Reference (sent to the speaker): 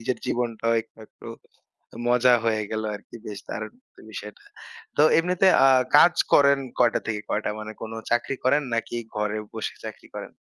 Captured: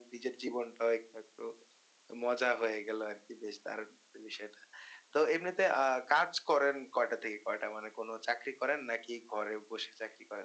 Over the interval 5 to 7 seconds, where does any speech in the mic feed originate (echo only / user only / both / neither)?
echo only